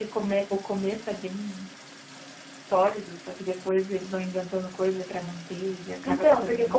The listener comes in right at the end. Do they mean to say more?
Yes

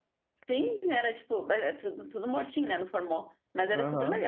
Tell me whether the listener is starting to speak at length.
Yes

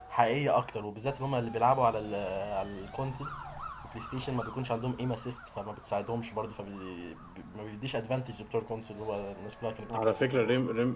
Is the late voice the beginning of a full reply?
Yes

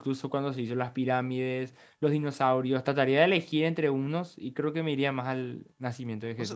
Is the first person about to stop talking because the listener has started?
Yes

